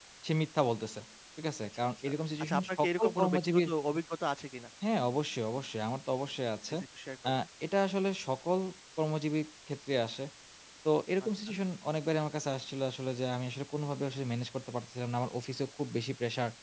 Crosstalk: present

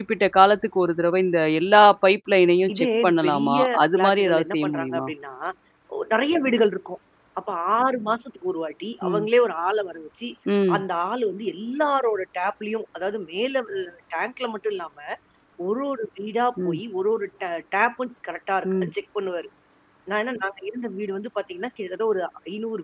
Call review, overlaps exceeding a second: present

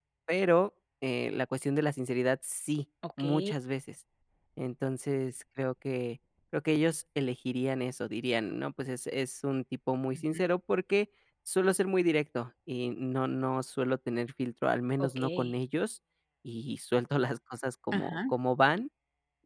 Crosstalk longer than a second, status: none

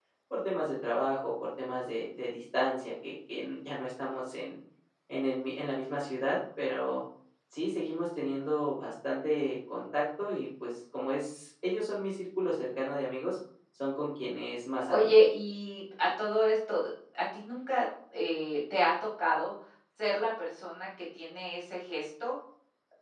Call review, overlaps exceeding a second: none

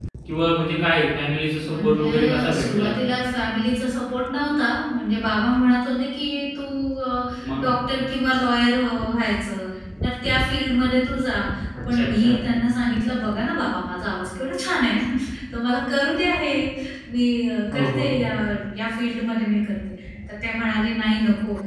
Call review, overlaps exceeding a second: present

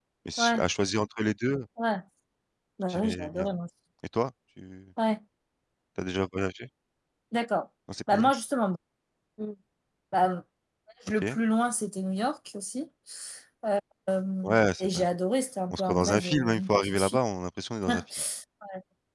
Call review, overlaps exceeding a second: present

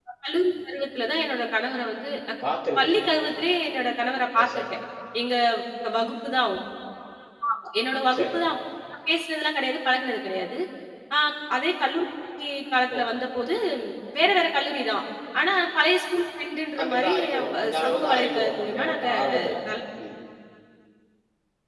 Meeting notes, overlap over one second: present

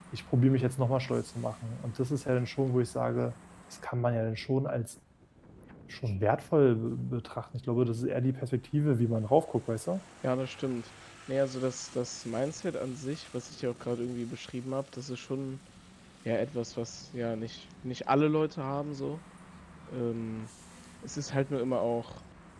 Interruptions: none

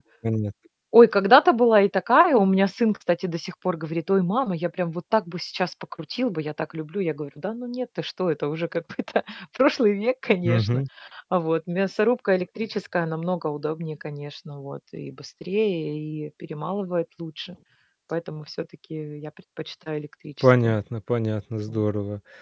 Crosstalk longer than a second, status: none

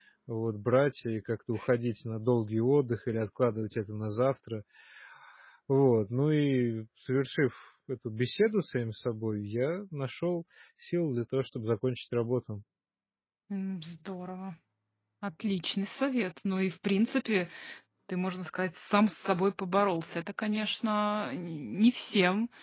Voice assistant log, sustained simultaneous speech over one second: none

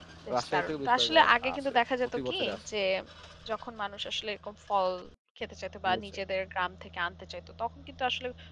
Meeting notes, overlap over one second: present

